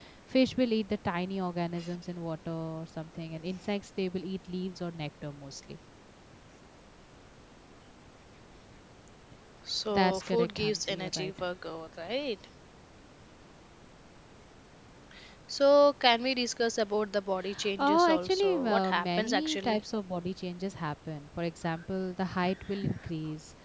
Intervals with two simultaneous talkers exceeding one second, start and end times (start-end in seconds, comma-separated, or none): 9.9-11.3, 17.8-19.8